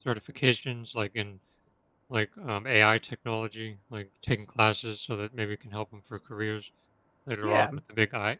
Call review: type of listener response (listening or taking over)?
taking over